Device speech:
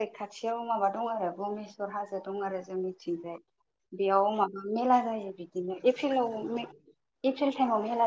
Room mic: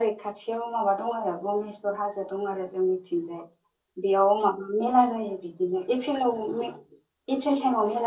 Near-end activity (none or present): none